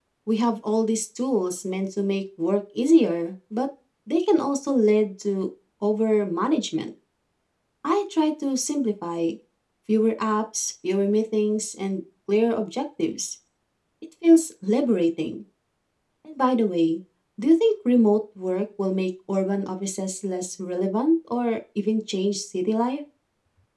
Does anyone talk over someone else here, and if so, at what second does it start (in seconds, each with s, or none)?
none